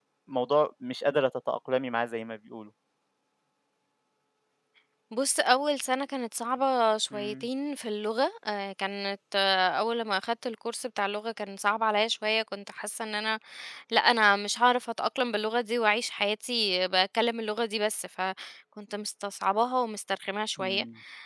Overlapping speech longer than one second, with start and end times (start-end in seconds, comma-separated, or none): none